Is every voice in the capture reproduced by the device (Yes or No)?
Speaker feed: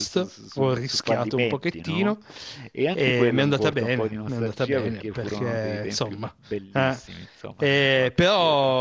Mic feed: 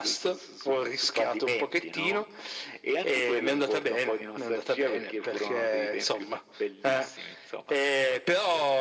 Yes